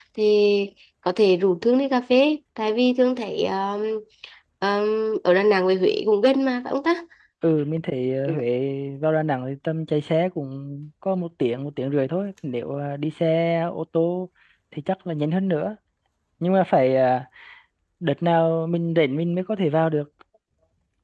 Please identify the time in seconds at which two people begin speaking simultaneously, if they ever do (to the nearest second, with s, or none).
none